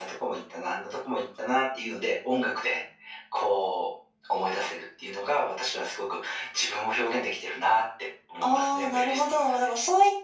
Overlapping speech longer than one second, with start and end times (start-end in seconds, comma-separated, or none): 8.4-9.7